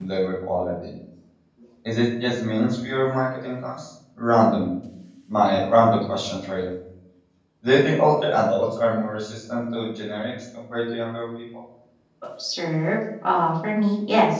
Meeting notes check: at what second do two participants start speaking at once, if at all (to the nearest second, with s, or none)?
none